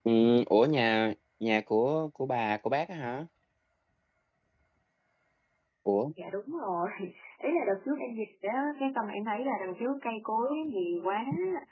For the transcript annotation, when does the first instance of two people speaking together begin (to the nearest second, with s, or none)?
none